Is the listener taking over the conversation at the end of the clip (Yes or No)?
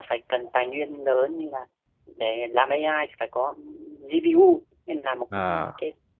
No